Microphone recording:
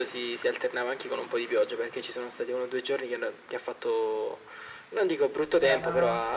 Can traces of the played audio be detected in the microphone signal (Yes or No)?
Yes